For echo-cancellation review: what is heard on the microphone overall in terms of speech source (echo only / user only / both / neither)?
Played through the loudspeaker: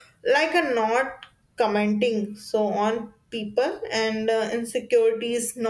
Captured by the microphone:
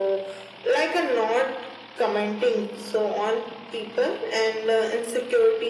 echo only